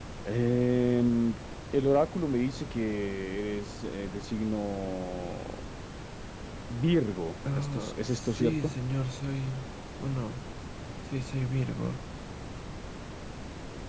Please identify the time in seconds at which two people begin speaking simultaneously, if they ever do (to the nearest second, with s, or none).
8 s